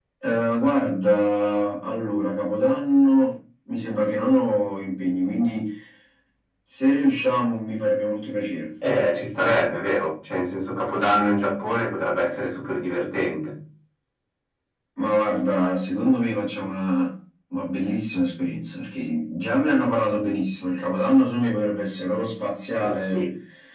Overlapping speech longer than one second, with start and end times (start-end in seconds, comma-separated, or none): none